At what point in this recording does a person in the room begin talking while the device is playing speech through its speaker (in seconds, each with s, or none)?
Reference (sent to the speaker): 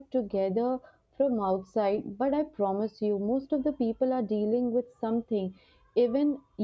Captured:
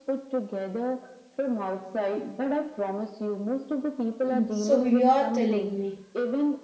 4.3 s